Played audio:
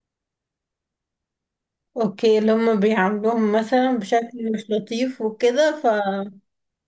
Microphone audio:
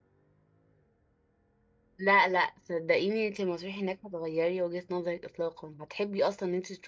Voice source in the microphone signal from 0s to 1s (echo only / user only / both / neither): neither